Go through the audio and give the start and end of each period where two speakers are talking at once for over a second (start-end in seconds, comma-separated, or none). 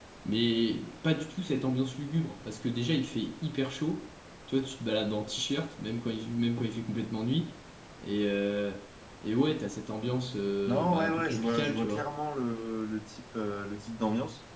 10.7-12.1